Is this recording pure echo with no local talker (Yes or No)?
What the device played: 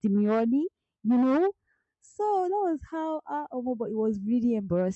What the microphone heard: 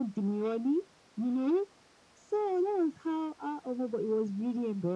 Yes